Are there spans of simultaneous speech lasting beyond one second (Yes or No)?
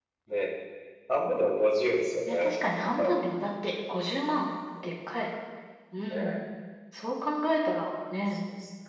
No